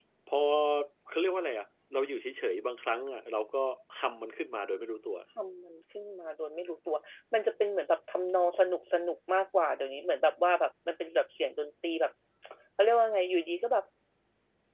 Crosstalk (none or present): none